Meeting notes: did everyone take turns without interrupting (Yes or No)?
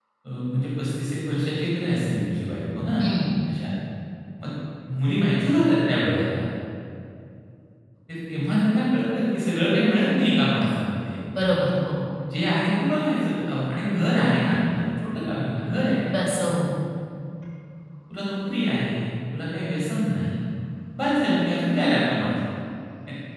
Yes